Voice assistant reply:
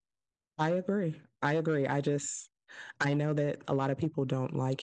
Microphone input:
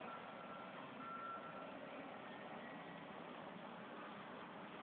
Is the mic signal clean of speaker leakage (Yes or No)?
Yes